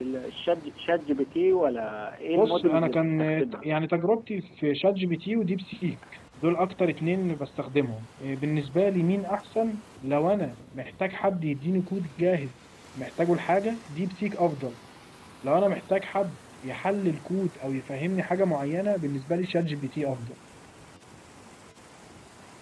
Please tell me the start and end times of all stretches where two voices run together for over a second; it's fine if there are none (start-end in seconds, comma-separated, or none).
2.4-3.6